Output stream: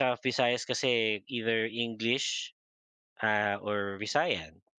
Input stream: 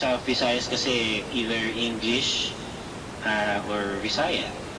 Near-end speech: none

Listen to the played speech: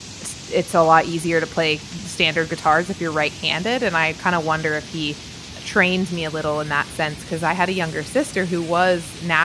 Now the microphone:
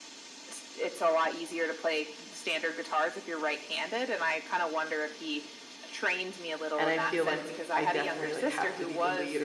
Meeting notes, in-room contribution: present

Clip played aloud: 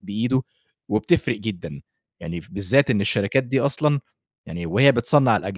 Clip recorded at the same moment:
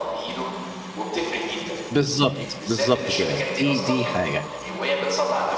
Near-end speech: present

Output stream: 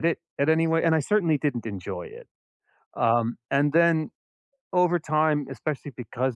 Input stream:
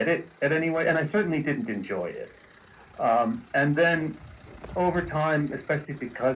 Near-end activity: none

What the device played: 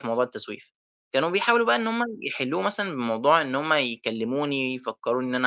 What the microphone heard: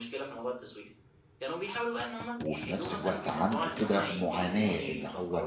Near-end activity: present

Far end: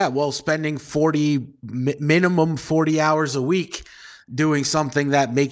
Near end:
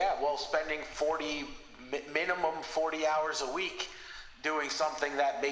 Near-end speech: none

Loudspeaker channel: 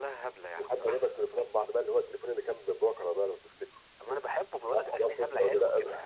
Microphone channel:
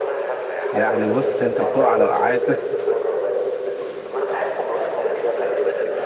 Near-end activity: present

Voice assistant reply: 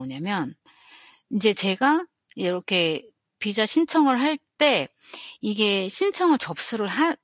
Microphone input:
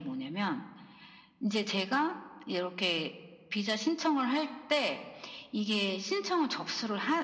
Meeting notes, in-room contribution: none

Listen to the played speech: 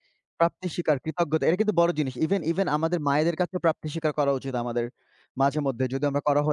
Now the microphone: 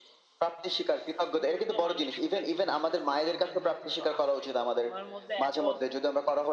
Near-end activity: present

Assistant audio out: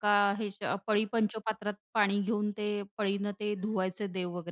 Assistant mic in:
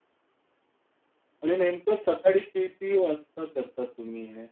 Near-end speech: present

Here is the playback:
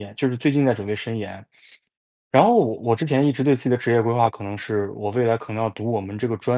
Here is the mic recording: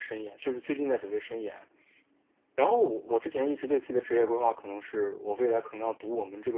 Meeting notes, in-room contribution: none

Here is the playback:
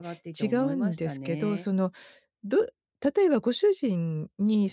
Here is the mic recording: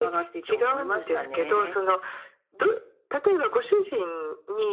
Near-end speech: none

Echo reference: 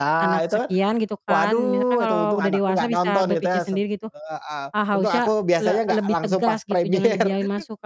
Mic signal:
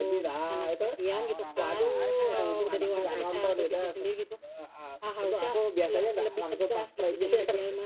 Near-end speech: present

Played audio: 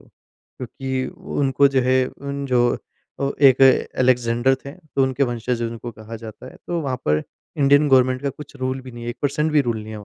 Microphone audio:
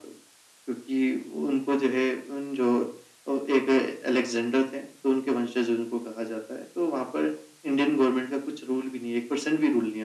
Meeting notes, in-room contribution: none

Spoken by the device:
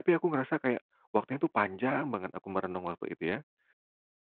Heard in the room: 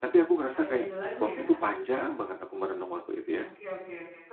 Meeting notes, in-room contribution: present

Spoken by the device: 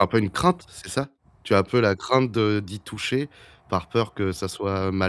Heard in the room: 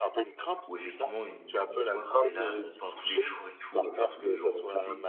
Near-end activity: present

